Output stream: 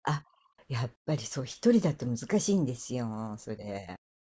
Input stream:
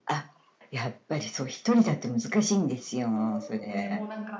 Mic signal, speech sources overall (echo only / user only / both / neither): both